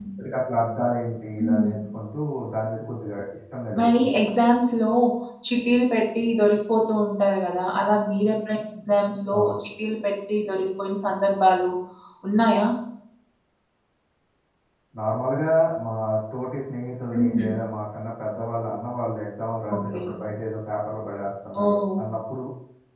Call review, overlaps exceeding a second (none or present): none